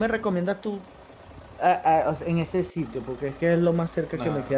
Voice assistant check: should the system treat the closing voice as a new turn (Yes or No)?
Yes